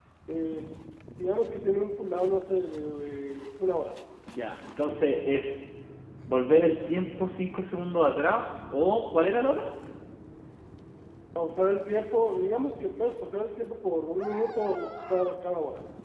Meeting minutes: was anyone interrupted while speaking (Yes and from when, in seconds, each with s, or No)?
No